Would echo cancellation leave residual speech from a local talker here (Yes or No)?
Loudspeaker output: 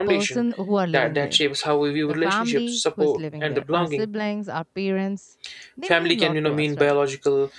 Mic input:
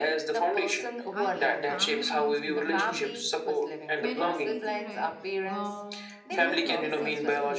Yes